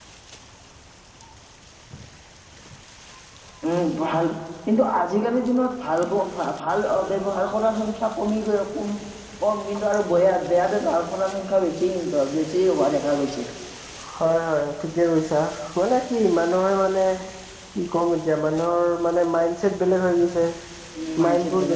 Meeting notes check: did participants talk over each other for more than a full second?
No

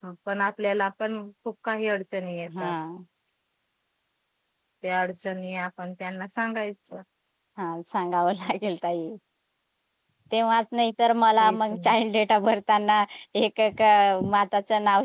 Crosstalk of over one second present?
No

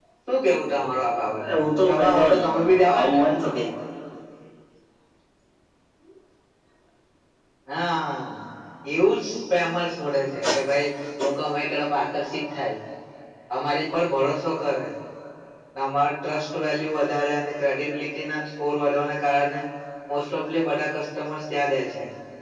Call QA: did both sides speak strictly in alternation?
No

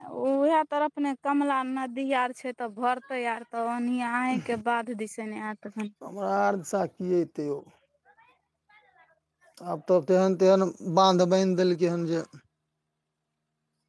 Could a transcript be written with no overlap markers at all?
Yes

